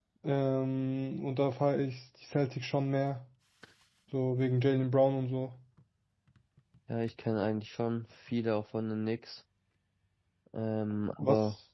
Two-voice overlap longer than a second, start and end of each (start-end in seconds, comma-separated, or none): none